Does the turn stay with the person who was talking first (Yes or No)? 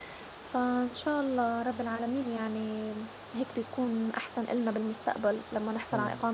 Yes